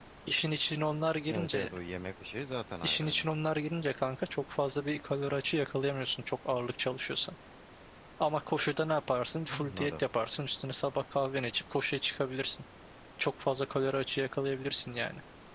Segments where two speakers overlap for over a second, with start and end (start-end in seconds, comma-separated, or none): none